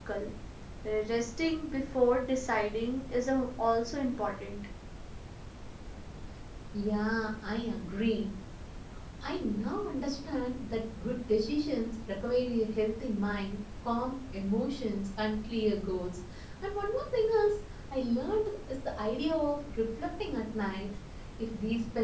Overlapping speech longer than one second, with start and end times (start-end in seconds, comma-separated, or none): none